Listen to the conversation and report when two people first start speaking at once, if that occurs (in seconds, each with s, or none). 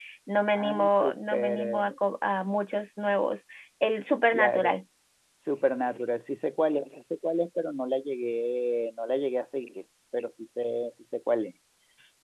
0.5 s